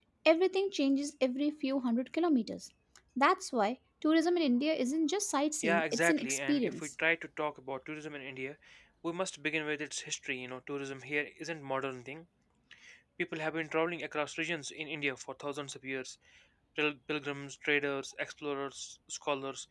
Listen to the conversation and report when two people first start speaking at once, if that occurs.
5.6 s

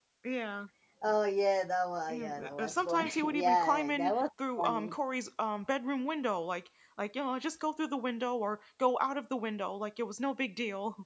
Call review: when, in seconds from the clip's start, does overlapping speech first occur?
2.1 s

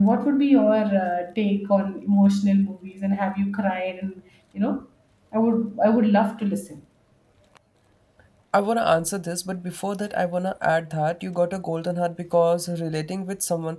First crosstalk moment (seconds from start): none

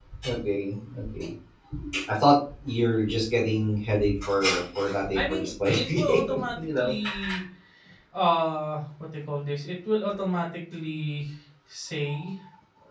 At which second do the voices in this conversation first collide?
5.2 s

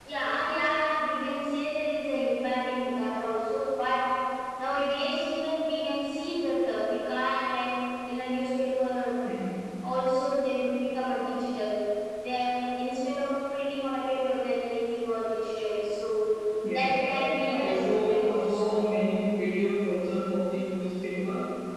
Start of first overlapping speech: 16.7 s

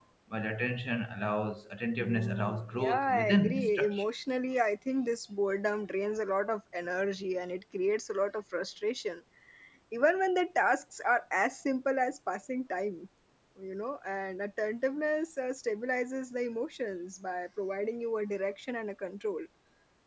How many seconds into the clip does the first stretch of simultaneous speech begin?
2.0 s

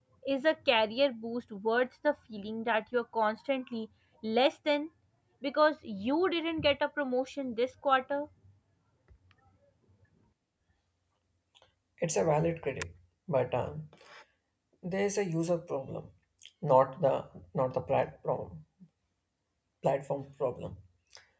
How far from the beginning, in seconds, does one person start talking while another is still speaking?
none

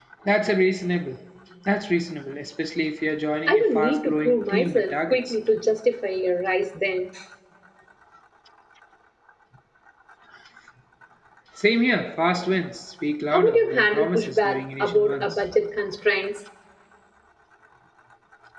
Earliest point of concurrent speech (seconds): 3.5 s

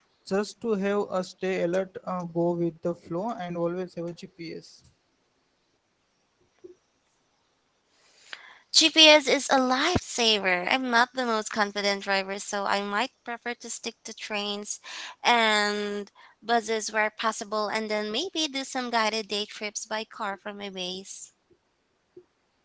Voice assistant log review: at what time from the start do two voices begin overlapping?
none

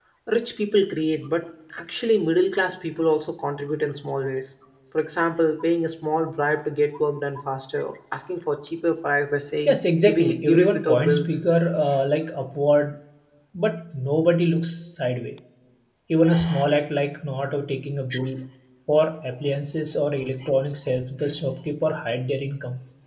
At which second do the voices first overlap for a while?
9.7 s

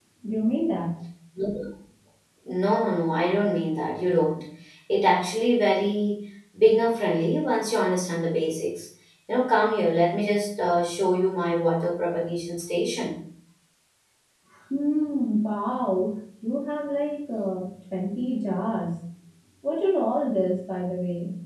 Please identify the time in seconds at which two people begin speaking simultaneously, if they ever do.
none

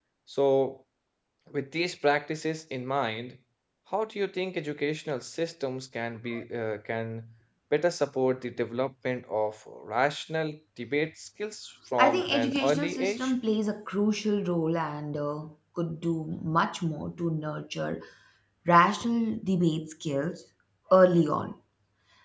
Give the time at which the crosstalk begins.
12.0 s

